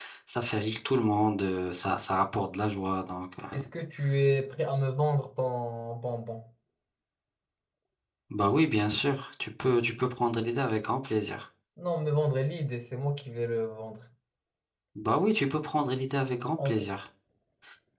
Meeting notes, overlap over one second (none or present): none